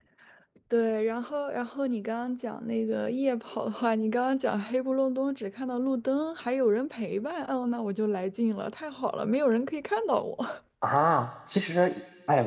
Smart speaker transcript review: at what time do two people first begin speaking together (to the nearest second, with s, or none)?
none